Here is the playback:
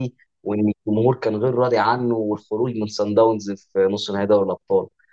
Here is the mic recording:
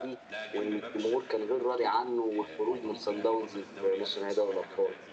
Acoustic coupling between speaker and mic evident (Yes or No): Yes